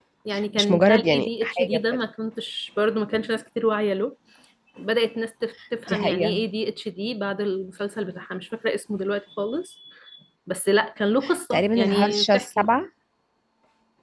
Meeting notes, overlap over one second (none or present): present